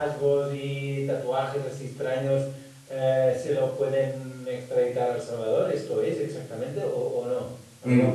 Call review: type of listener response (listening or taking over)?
taking over